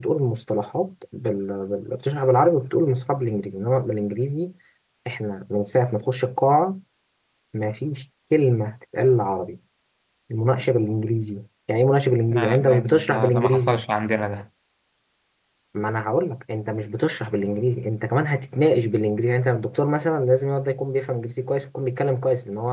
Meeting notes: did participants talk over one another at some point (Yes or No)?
Yes